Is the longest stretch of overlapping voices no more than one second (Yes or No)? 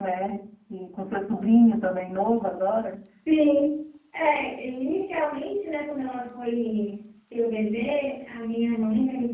Yes